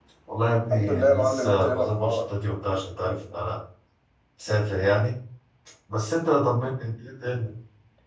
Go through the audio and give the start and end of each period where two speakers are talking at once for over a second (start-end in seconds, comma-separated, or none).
0.7-2.2